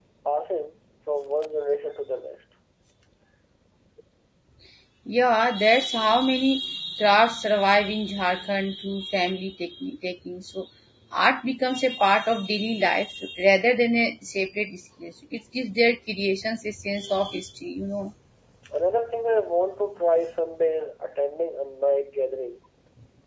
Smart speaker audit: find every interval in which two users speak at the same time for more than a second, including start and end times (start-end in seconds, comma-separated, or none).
none